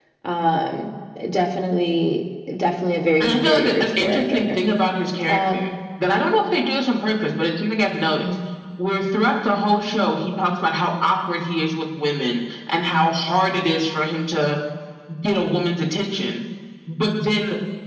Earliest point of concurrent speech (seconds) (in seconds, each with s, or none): 3.2 s